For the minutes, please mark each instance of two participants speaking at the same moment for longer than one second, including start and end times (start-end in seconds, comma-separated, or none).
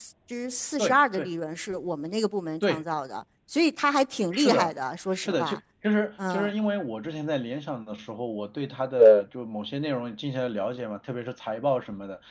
none